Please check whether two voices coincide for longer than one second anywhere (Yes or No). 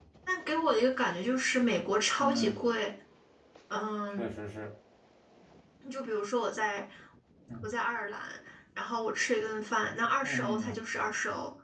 No